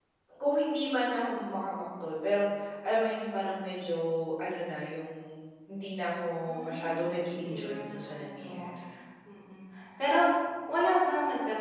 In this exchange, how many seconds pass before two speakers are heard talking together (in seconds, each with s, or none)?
6.5 s